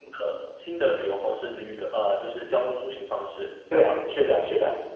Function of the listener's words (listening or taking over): taking over